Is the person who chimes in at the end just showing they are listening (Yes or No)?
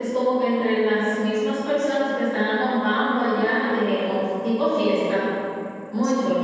No